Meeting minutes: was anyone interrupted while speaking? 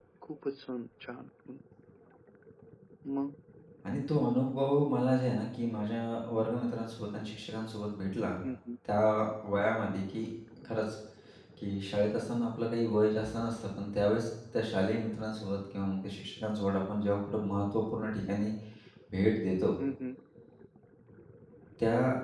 No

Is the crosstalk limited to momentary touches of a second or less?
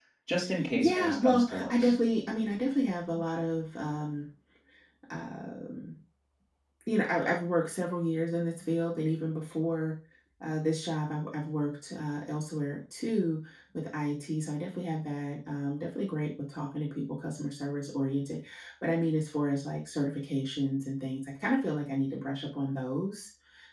No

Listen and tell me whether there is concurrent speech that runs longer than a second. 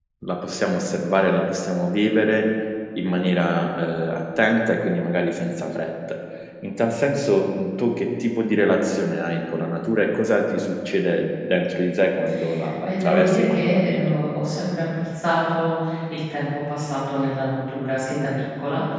Yes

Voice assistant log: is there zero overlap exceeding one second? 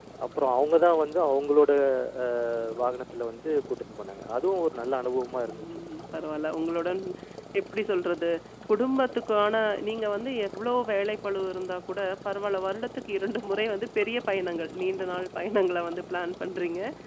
Yes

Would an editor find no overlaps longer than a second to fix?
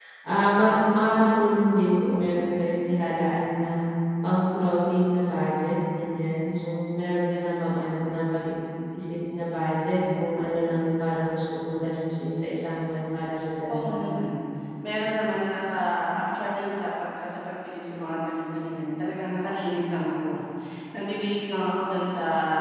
Yes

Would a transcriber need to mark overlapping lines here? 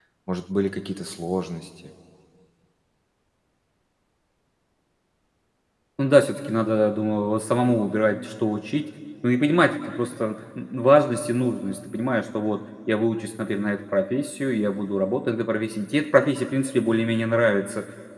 No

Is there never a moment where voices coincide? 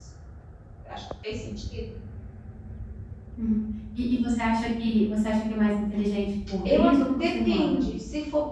No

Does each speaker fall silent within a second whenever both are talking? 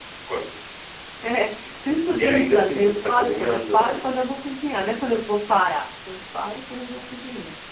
No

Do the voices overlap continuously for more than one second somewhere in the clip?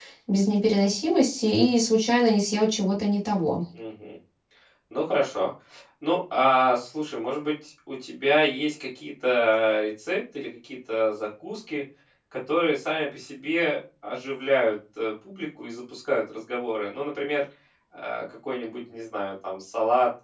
No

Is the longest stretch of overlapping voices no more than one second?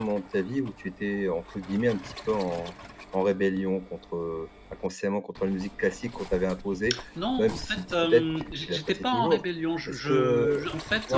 No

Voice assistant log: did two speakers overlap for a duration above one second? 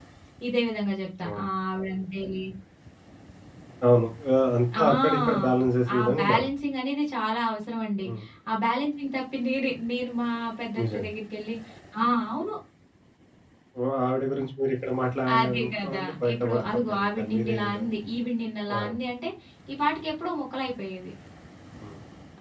Yes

